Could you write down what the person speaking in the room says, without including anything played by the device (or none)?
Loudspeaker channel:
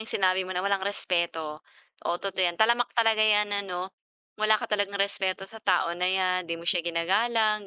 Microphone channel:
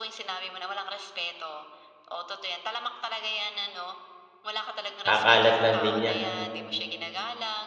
kakalat lang din niya.